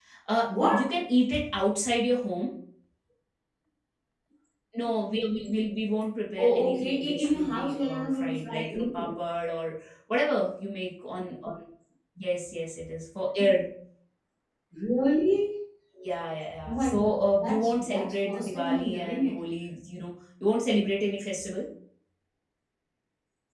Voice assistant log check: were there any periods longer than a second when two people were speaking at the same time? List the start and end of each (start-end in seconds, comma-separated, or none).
6.4-9.1, 16.7-19.4